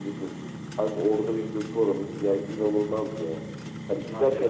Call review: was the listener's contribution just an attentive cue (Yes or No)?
Yes